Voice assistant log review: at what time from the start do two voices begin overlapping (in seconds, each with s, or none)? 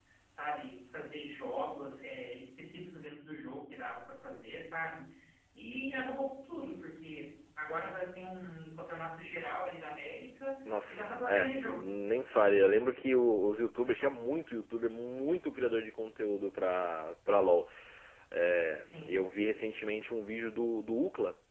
10.7 s